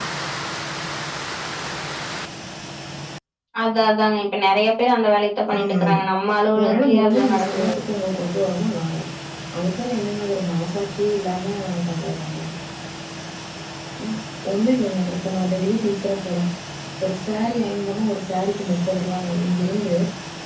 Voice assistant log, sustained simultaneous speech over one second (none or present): present